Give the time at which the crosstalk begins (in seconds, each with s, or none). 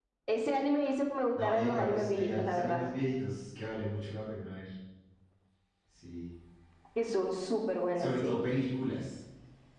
1.4 s